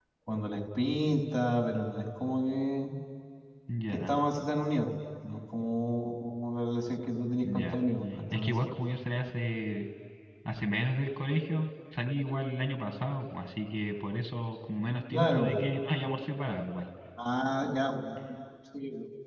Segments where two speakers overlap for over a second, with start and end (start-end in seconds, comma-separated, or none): none